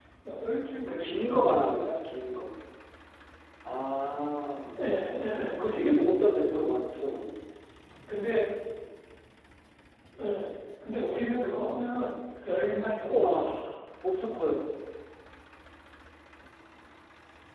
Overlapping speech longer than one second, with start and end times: 0.9-2.1

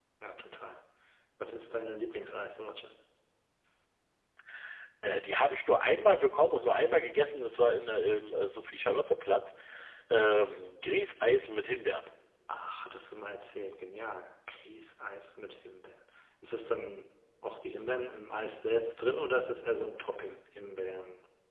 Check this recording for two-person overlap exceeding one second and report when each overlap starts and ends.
none

